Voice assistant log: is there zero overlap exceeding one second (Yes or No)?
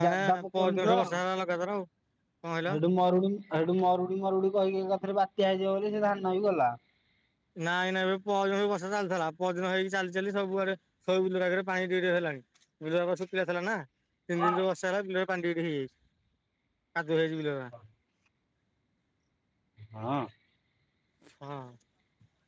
No